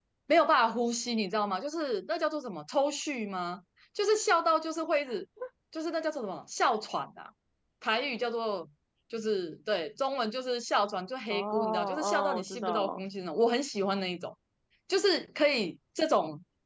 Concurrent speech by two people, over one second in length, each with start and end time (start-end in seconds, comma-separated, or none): 11.3-13.0